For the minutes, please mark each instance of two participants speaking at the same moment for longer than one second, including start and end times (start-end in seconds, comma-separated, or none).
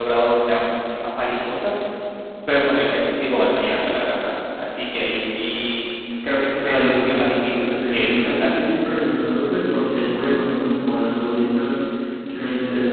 6.6-8.5